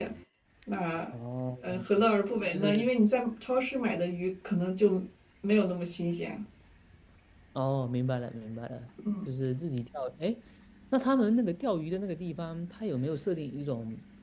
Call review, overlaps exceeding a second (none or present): none